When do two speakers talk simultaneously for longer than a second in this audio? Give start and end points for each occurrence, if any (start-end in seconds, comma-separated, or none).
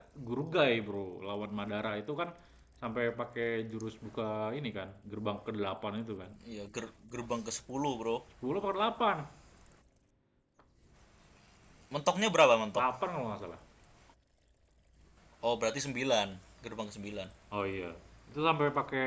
none